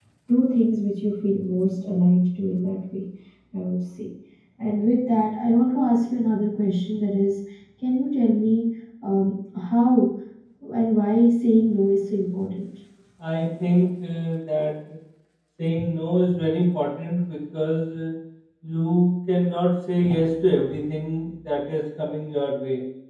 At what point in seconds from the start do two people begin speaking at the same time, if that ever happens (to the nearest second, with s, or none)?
none